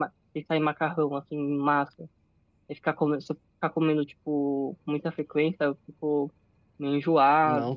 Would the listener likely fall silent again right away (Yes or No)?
No